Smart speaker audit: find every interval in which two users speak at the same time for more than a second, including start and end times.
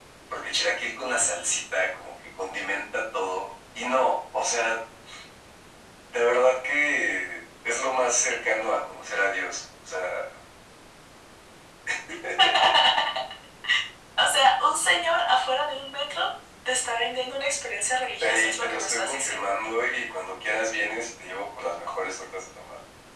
18.2-19.6

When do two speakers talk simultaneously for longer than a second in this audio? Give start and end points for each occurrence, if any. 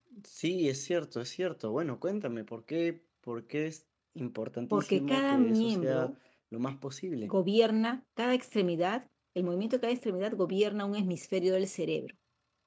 4.7-6.0

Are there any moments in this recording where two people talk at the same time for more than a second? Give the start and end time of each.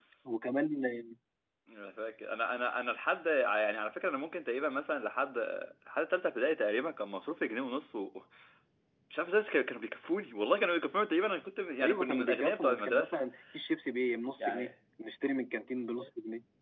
11.8-13.1

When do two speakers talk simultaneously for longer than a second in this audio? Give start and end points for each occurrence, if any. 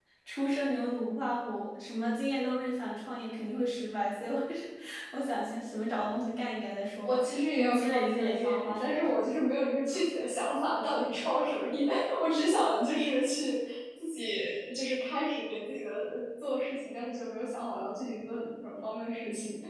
7.0-9.2

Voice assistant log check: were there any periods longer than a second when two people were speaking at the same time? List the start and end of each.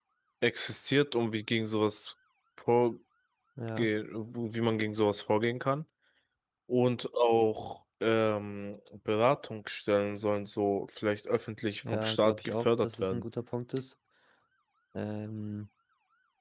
11.9-13.2

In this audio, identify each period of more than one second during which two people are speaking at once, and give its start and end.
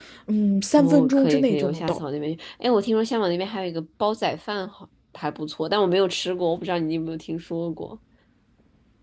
0.8-2.0

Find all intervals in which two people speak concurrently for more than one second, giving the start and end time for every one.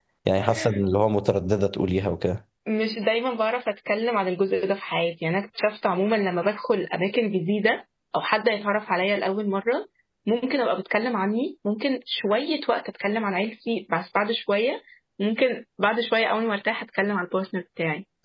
none

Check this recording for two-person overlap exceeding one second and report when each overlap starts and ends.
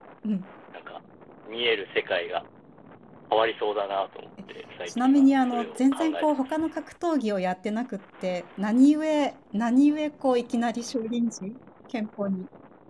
4.9-6.5

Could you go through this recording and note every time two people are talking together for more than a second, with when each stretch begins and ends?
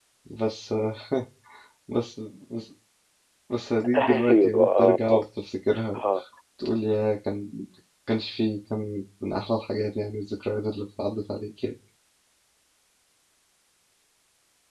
4.0-5.2

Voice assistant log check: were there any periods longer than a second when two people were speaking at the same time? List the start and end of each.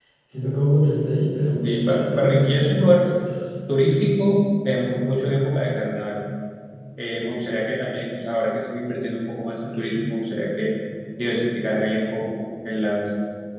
1.6-3.0

